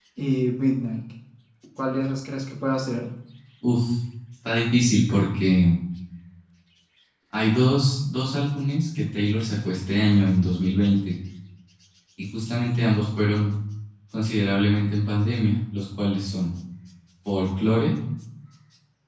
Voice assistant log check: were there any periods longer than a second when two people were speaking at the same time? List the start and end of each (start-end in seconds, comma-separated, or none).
none